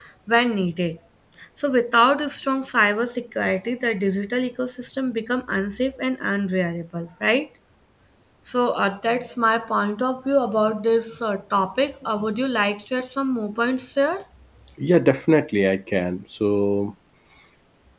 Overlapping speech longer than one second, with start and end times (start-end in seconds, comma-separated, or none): none